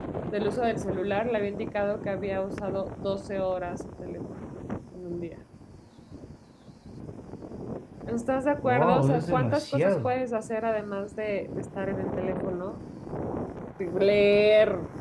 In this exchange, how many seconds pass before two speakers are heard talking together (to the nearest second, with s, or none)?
9 s